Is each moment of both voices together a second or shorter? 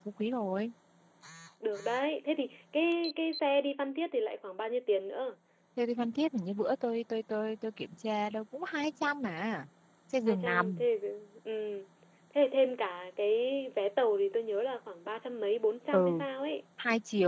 Yes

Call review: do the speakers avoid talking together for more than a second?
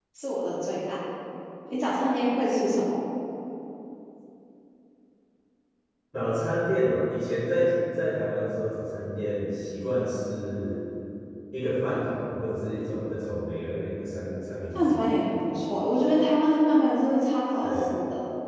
Yes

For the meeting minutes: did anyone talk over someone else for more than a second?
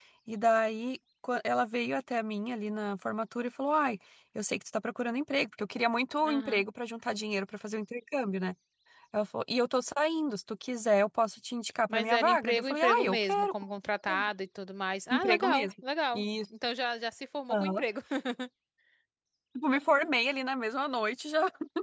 Yes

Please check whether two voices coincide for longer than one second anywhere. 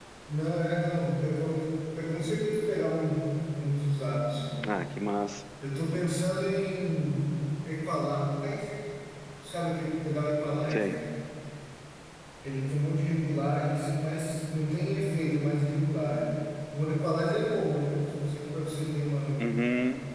No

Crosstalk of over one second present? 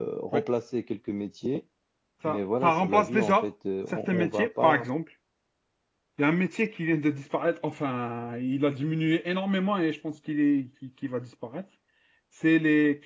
Yes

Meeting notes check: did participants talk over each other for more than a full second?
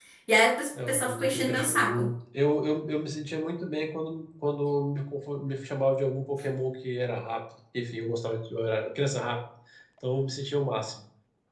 Yes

